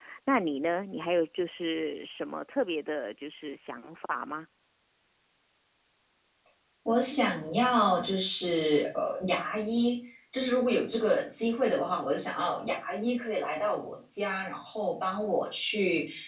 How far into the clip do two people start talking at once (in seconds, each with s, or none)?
none